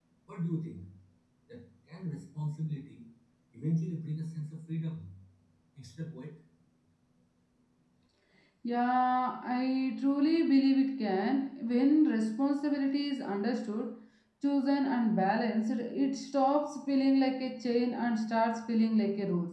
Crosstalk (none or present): none